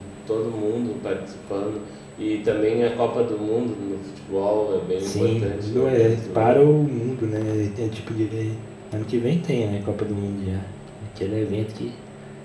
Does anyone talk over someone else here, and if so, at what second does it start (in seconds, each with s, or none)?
5.0 s